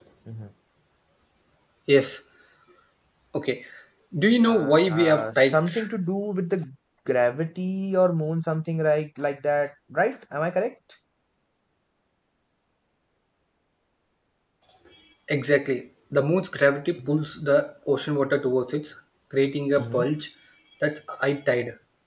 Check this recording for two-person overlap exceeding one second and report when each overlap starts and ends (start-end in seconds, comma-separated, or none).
4.5-5.9